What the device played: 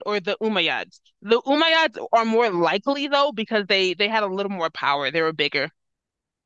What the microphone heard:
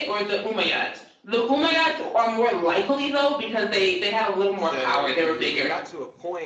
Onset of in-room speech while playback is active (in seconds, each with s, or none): 4.5 s